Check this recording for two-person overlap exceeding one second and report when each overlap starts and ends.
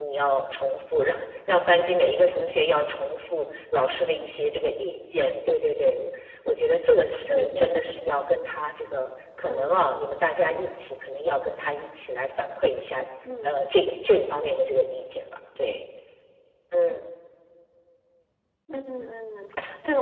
none

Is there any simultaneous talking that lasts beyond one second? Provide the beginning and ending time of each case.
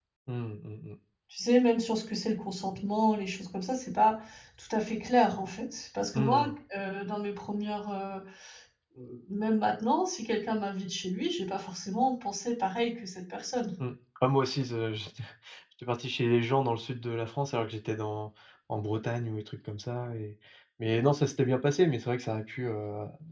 none

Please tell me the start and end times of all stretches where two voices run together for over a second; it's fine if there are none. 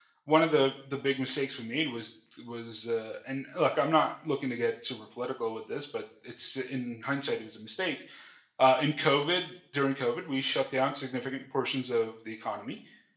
none

